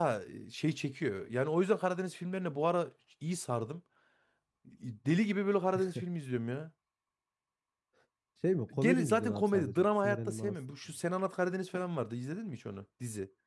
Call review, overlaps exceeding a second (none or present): present